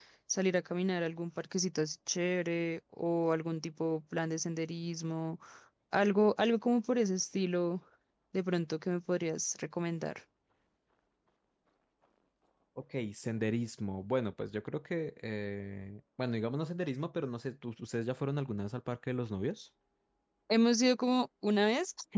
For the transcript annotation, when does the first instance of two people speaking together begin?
none

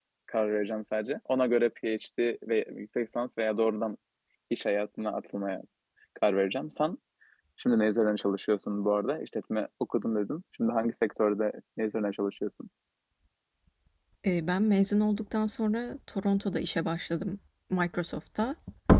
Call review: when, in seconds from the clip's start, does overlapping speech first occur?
none

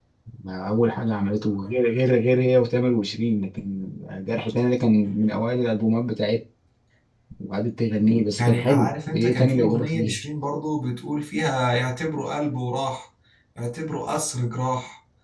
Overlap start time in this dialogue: 8.4 s

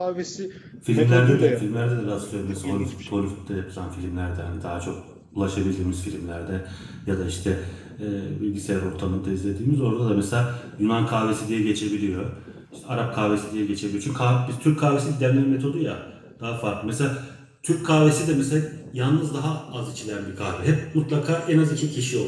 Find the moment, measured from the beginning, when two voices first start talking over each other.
0.9 s

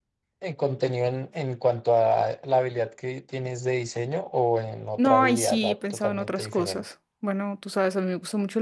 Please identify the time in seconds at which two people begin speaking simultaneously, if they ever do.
5.0 s

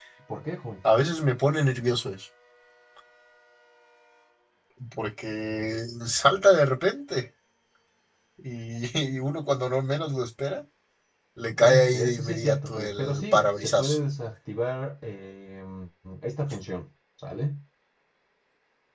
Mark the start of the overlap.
11.6 s

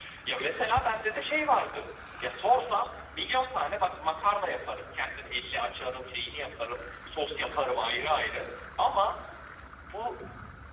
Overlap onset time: none

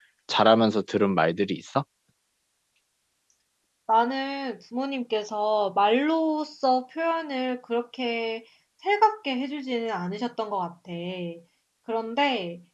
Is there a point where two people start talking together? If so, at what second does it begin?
none

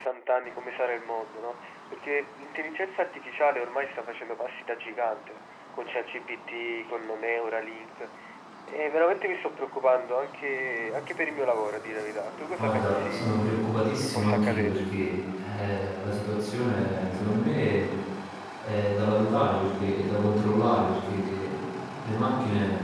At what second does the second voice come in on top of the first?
12.6 s

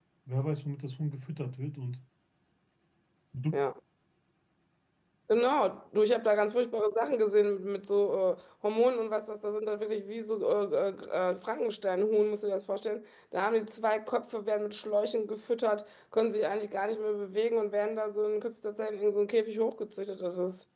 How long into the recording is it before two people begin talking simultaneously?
none

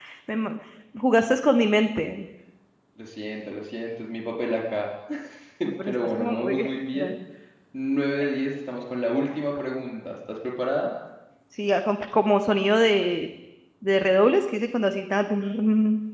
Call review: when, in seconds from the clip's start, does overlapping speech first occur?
5.8 s

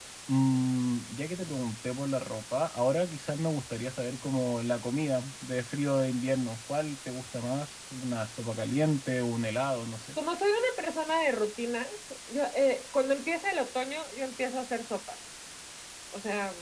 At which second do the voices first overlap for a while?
none

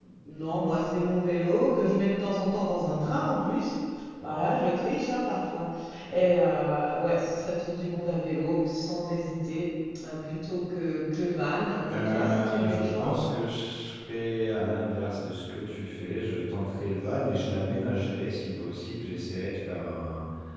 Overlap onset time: 11.9 s

